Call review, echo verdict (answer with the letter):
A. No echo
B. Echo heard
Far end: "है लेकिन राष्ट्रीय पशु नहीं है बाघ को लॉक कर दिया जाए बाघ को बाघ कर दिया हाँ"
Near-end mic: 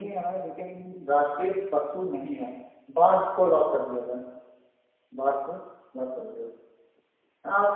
B